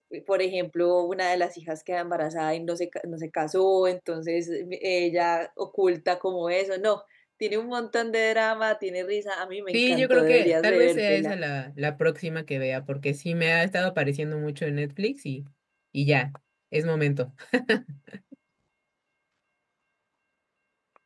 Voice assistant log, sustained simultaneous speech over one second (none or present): present